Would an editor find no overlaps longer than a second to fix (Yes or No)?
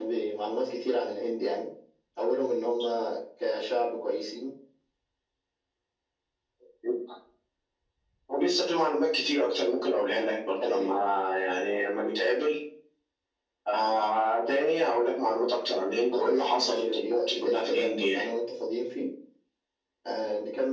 No